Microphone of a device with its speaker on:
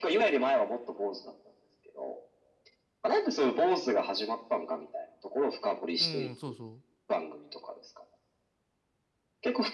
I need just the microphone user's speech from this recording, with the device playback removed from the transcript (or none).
うん、そうそ